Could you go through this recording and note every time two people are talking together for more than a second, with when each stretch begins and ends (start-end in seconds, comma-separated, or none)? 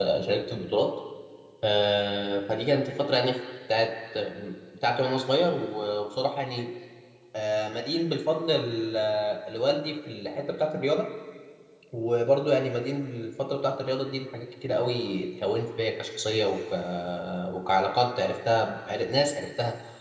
none